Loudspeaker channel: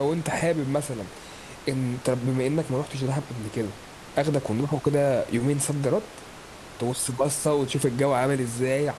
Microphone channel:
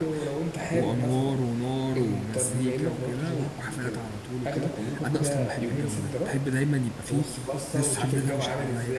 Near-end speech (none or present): present